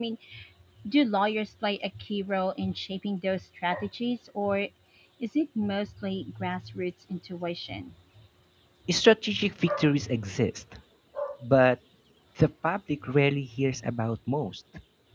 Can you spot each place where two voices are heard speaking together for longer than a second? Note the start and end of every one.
none

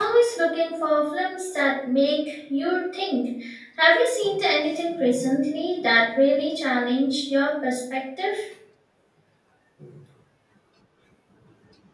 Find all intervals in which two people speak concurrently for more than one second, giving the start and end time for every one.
none

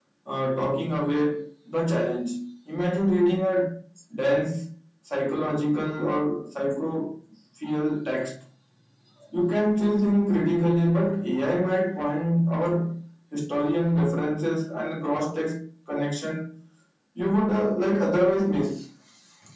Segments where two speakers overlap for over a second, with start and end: none

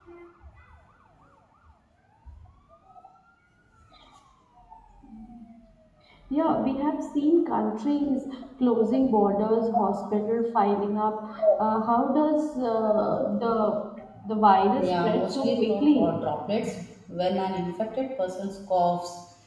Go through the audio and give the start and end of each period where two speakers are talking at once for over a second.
14.8-16.1

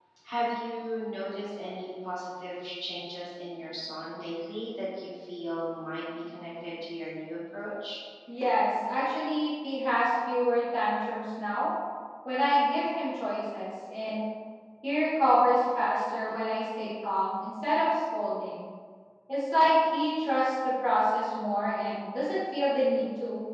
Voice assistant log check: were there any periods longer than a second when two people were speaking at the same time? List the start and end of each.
none

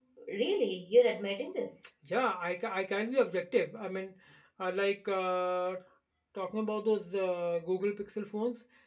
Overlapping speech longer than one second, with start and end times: none

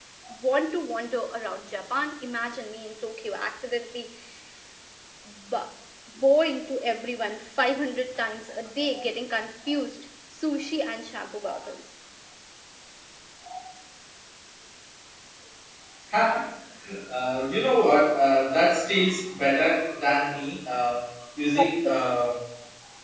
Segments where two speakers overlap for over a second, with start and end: none

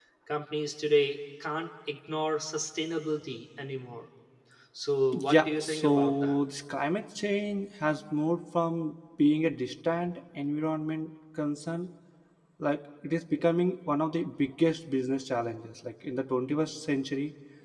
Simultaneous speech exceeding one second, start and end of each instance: 5.1-6.4

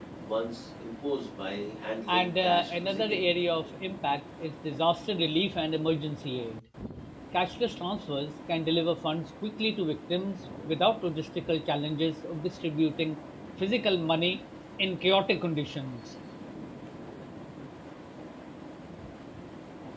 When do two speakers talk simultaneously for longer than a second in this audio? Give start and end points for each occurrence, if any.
2.1-3.3

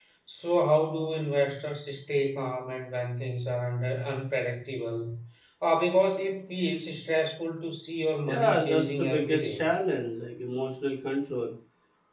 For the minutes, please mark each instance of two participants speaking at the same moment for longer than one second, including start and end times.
8.2-9.6

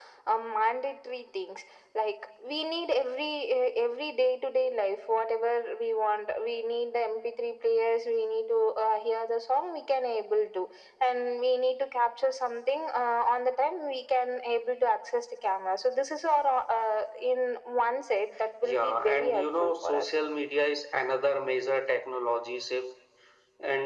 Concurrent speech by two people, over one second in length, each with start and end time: 18.6-20.1

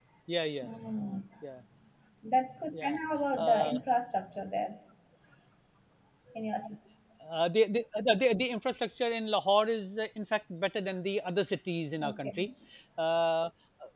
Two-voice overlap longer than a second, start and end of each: none

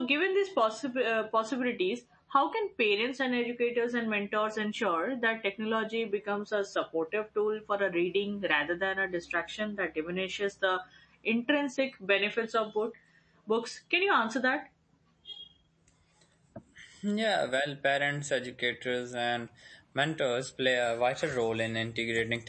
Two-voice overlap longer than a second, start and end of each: none

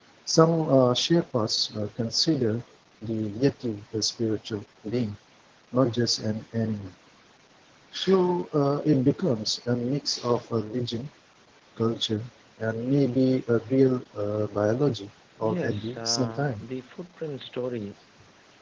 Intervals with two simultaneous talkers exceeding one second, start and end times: 15.4-16.6

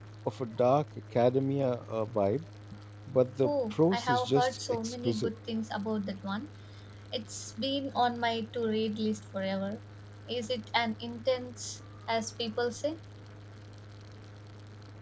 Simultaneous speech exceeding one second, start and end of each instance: 3.4-5.3

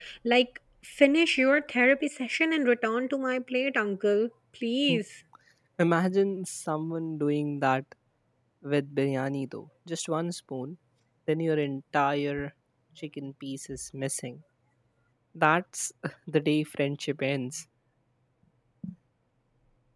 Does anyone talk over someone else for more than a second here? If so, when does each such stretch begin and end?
none

